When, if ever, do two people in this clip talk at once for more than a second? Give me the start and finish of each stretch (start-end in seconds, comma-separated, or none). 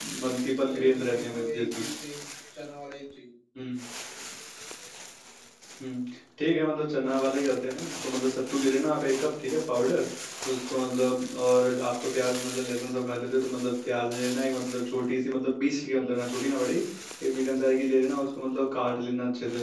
0.6-1.8